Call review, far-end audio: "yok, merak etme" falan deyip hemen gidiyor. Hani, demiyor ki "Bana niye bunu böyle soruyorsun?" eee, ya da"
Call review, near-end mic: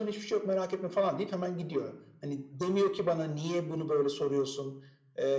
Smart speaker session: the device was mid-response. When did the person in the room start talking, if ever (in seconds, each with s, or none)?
none